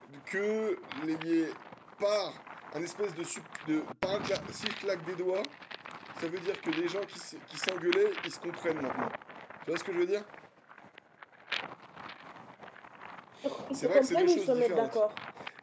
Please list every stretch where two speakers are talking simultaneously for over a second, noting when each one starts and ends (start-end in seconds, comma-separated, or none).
13.7-15.0